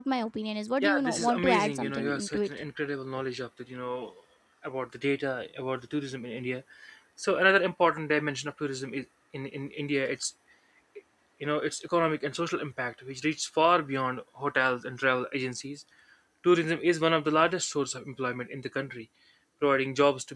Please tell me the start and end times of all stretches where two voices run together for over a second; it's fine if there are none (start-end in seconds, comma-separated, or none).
0.8-2.5